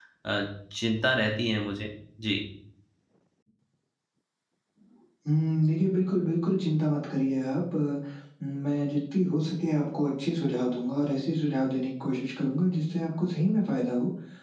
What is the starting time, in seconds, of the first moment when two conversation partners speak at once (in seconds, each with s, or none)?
none